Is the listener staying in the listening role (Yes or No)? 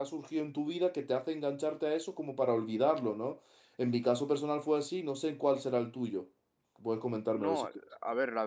No